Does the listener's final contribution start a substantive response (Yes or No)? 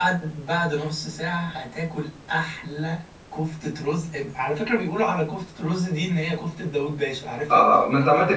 Yes